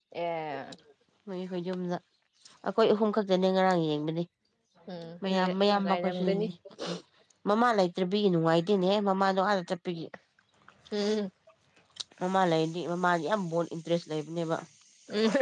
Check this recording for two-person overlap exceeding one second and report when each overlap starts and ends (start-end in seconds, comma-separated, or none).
5.2-6.5